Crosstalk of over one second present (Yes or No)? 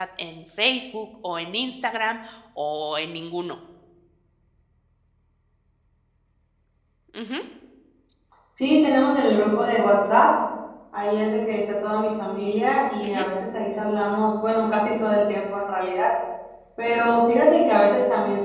No